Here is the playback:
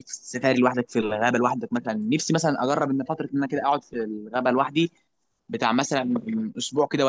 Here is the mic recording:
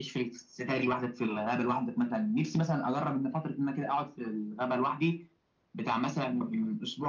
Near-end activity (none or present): none